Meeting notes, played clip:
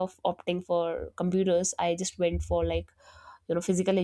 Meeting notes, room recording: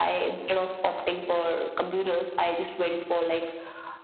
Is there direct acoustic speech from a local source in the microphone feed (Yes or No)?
No